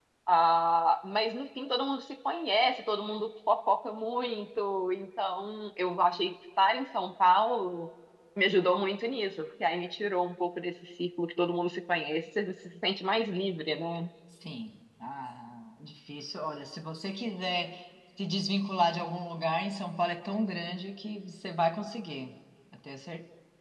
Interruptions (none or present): none